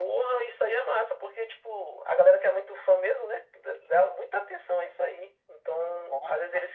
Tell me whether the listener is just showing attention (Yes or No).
Yes